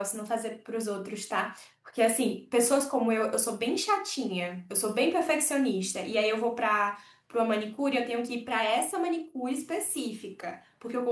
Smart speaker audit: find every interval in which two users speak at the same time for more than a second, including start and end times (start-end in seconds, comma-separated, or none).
none